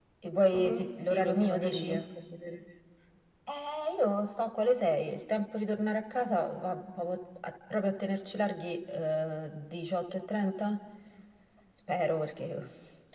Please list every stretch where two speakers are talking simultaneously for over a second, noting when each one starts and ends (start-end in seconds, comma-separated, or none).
0.5-1.9